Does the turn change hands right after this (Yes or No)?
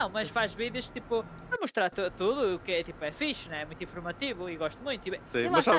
Yes